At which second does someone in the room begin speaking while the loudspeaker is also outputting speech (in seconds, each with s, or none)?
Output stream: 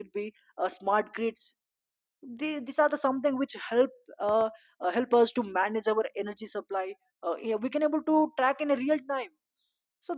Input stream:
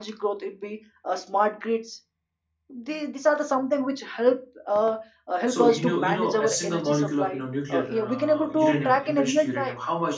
5.5 s